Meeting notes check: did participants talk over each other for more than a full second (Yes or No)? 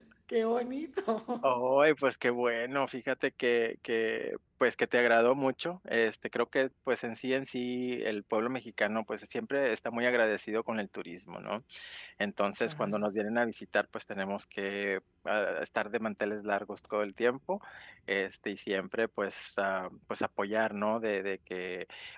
No